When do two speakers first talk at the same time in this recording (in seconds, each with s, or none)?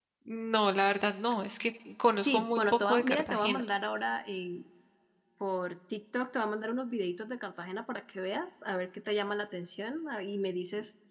2.2 s